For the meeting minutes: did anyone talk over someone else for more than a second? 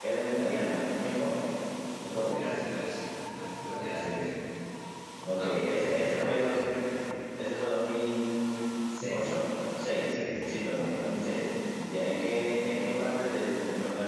Yes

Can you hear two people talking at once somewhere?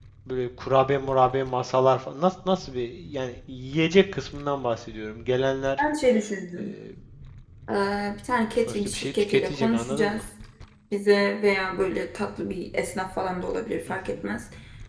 Yes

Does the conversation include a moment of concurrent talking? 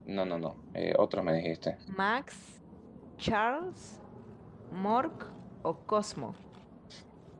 No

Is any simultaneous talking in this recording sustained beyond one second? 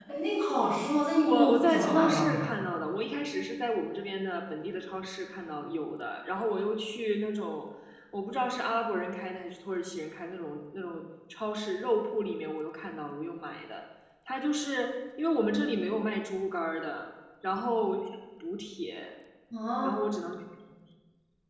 Yes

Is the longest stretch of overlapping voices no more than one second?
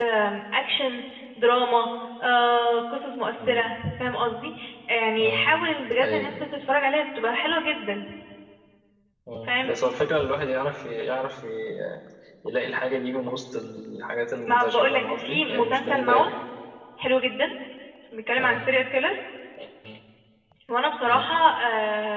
No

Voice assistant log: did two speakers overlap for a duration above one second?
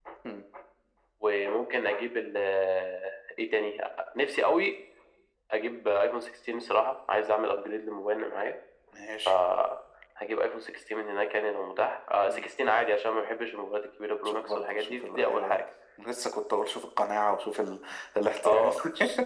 Yes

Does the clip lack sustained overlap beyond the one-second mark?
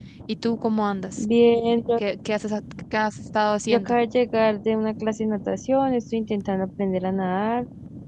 Yes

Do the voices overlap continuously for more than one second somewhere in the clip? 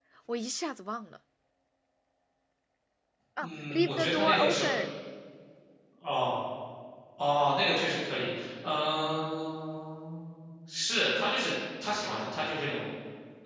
Yes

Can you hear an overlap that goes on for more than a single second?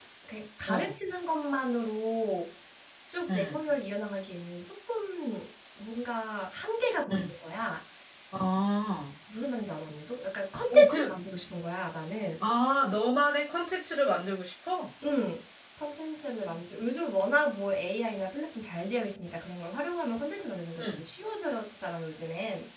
No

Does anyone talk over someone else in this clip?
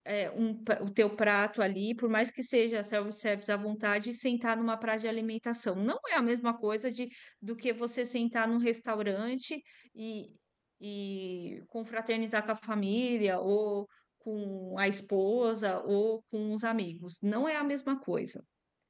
No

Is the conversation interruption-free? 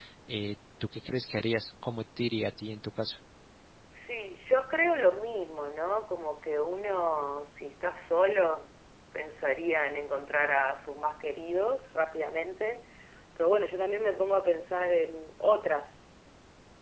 Yes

